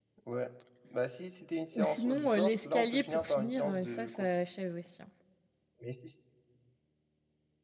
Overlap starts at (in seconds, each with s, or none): 1.8 s